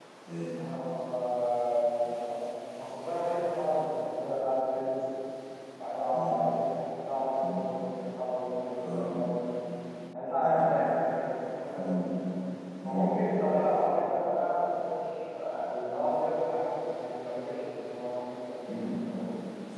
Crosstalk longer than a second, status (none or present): none